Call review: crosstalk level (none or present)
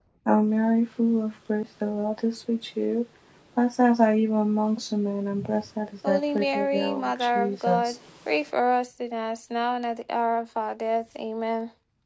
present